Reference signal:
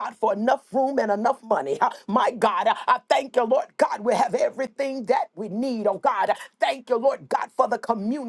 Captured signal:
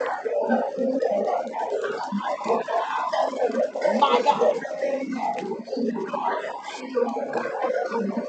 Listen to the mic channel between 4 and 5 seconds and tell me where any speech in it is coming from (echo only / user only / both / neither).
both